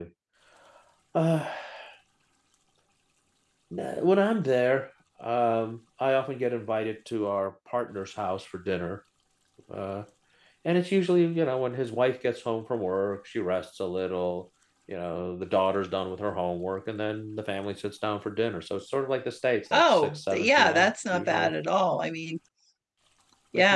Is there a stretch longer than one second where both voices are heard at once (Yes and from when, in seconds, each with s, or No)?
Yes, from 19.7 s